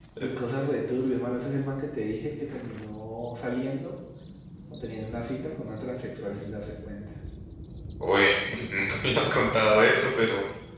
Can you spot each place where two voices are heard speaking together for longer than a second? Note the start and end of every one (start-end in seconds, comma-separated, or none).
none